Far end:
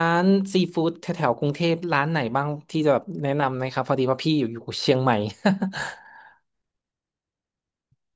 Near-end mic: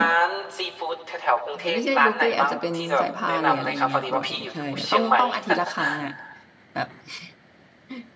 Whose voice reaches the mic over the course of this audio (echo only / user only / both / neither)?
both